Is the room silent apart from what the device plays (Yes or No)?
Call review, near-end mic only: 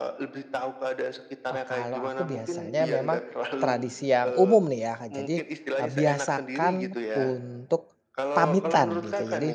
No